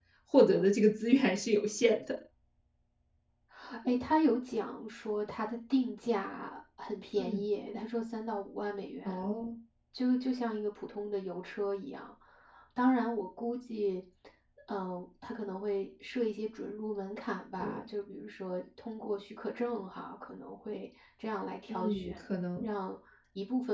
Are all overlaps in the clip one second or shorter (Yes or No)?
Yes